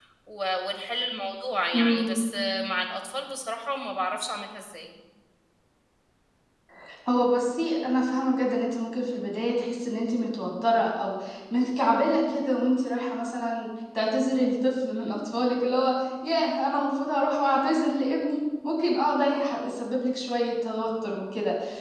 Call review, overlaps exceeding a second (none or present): none